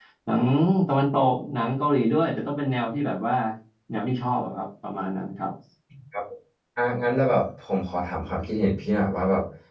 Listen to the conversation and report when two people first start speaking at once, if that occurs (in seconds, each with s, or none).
none